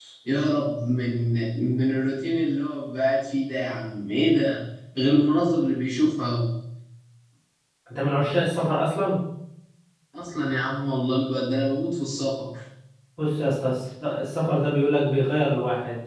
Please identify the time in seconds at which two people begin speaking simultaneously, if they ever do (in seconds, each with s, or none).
none